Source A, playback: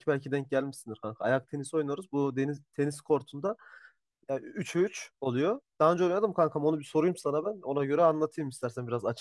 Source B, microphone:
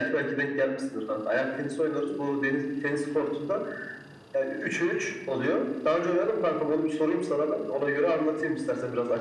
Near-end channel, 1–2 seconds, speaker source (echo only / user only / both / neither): echo only